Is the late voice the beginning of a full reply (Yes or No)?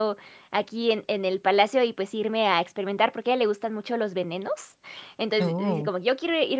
No